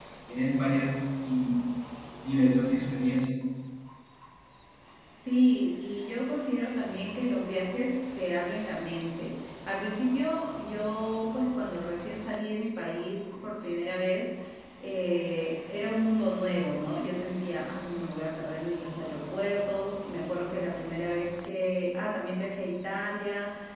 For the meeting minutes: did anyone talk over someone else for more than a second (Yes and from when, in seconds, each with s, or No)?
No